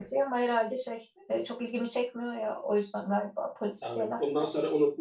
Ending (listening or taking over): taking over